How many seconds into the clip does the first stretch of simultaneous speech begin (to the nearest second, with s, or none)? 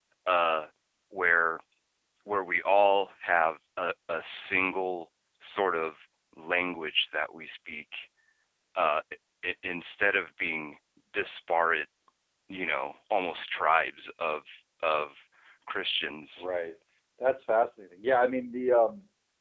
none